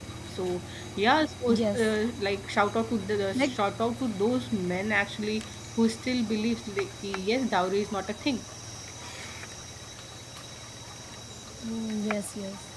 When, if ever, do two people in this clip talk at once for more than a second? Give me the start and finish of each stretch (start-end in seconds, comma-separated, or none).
none